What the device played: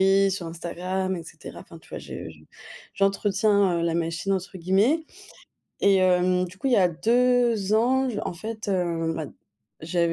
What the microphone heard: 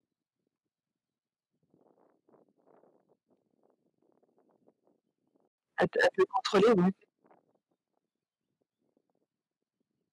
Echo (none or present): none